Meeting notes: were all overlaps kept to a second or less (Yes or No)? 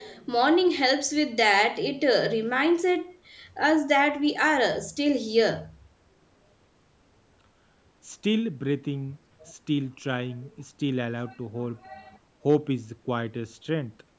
Yes